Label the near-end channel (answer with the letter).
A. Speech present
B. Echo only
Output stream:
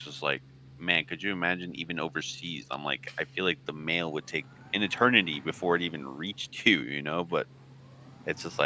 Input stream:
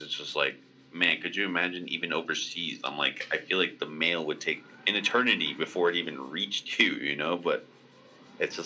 B